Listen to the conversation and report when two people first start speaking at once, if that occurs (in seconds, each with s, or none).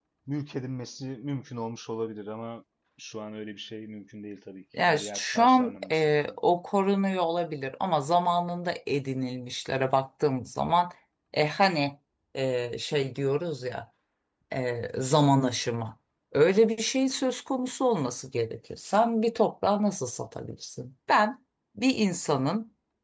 4.7 s